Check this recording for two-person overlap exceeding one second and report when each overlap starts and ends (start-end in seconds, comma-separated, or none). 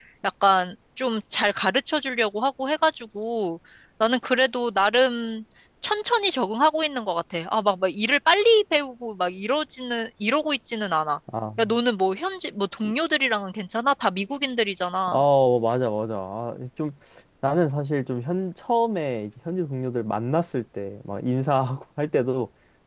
none